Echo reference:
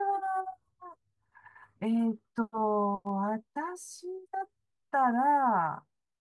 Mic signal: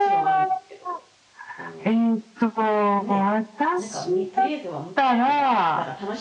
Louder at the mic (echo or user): echo